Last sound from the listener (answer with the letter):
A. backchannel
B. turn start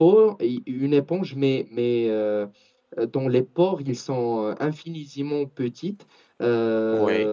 A